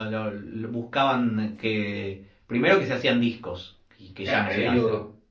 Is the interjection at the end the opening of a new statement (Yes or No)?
Yes